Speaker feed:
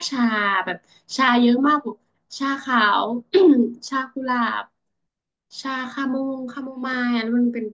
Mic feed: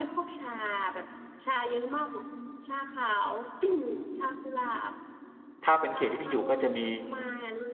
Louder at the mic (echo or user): user